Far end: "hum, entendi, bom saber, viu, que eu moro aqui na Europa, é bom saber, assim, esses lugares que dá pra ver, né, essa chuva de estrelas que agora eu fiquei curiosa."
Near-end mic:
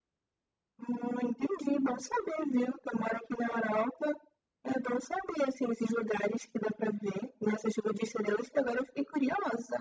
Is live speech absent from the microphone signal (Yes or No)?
Yes